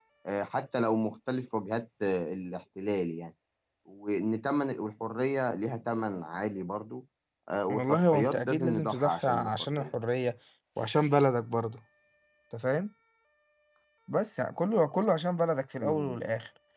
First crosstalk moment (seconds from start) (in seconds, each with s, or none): 7.7 s